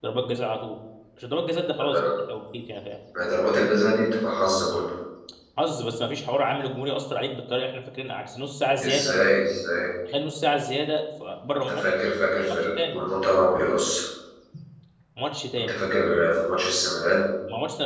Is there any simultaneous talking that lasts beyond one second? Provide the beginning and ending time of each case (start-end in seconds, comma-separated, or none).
none